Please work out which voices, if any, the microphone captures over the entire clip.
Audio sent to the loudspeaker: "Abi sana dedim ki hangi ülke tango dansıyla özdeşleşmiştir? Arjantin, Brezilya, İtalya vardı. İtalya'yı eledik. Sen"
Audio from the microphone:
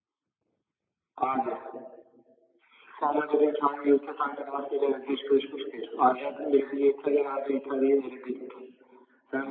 echo only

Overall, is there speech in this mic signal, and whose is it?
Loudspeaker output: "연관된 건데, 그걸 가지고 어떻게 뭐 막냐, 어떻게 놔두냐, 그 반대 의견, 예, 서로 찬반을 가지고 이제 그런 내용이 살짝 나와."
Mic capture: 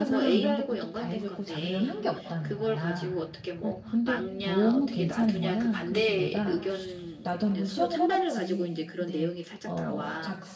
both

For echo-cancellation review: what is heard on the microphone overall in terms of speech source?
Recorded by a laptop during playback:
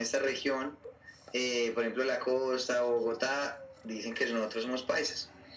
echo only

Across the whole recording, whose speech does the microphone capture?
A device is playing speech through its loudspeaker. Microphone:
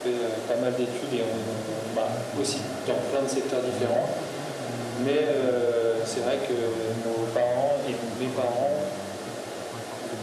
both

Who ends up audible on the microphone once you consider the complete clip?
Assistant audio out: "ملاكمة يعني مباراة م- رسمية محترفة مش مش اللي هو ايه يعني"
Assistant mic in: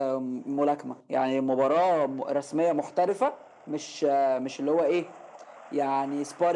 echo only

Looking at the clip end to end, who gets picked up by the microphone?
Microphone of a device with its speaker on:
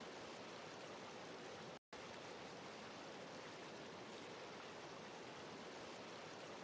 neither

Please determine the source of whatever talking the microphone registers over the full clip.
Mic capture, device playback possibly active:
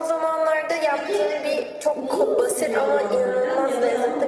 both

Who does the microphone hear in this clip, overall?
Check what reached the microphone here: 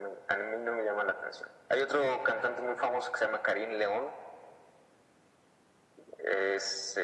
echo only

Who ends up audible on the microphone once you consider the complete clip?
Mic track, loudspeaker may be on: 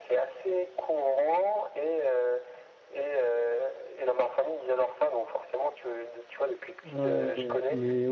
both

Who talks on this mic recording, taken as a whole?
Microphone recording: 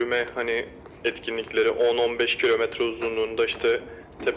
echo only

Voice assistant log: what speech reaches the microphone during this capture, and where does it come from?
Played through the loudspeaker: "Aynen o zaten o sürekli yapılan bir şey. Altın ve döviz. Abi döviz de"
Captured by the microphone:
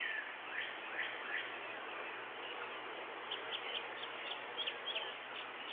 neither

